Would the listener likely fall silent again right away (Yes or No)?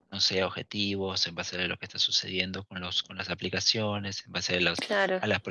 Yes